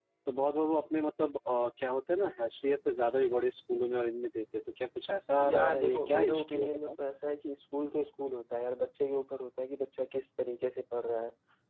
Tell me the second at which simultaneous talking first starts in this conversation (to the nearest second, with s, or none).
5 s